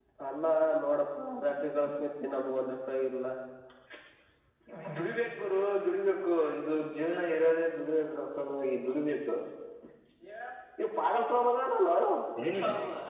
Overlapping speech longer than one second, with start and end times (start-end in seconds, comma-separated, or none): none